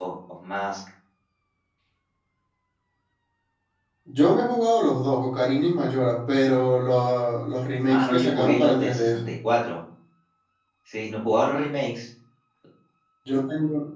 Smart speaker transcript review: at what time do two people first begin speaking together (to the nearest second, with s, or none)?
8 s